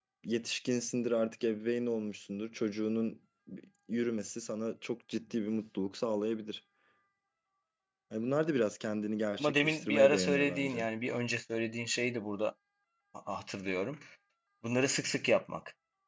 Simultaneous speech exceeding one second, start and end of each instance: 9.4-10.9

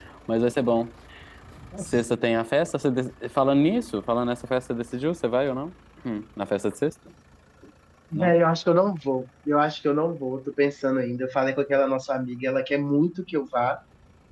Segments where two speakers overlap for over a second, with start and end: none

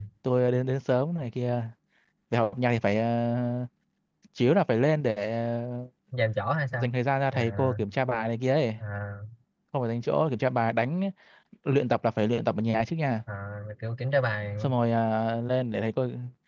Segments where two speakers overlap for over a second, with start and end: none

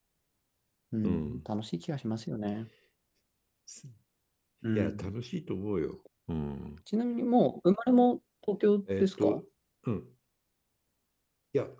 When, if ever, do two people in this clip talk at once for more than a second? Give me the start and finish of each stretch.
none

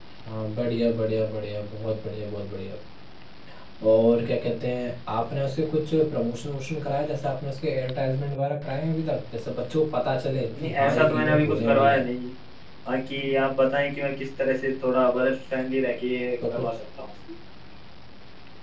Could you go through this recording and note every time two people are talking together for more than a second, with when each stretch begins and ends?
10.6-12.0

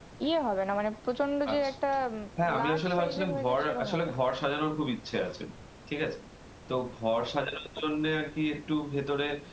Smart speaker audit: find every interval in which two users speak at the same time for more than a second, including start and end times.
2.6-4.2

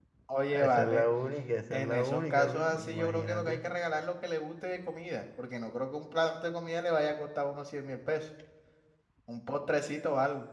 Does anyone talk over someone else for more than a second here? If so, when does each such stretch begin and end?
1.7-3.6

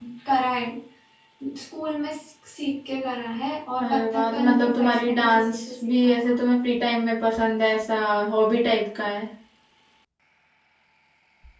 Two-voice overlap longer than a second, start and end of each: 3.8-6.4

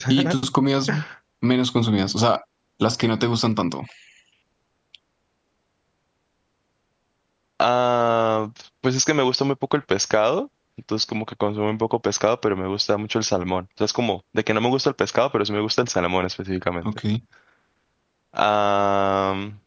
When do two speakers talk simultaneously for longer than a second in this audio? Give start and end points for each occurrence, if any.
none

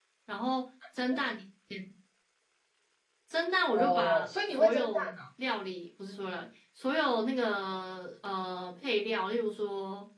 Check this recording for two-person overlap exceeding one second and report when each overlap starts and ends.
3.7-5.1

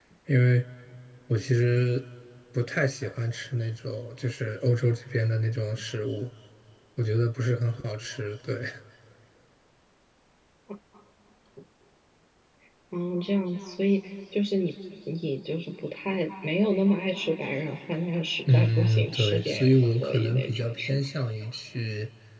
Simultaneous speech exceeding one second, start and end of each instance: 18.5-21.0

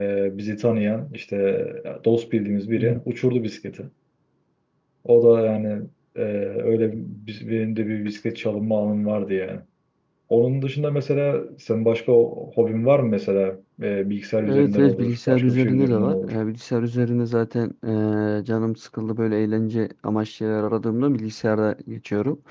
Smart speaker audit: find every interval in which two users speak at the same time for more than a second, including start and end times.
14.5-16.3

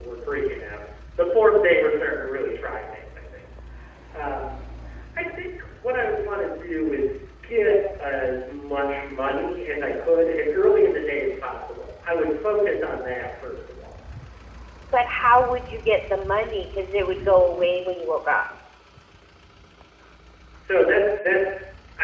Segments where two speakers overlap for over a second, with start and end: none

